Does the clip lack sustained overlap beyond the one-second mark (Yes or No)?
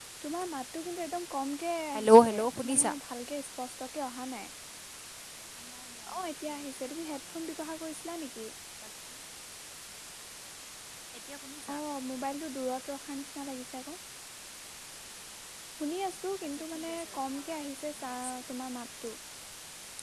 No